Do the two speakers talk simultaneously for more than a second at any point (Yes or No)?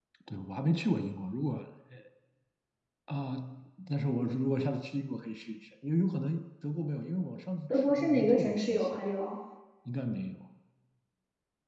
Yes